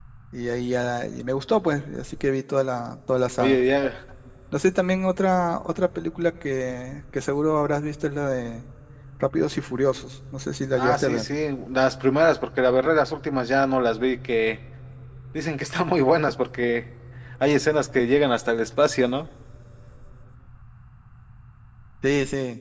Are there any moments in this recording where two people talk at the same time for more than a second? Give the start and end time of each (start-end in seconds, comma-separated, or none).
none